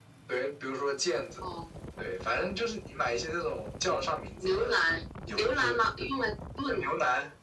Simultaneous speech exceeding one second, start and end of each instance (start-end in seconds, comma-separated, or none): none